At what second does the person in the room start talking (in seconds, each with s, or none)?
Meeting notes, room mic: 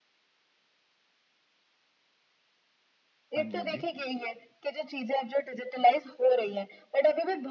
3.3 s